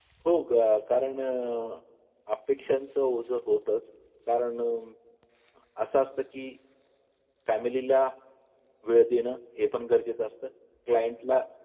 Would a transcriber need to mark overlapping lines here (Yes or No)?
No